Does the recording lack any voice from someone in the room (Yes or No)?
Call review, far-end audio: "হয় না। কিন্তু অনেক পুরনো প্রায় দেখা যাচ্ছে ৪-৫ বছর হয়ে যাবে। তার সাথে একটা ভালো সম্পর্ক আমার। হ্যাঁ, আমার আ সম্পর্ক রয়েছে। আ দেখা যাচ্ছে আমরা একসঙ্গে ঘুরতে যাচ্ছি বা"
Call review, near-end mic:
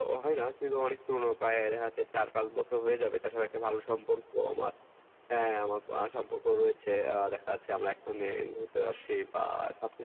Yes